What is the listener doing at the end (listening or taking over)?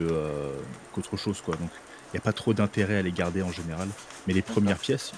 listening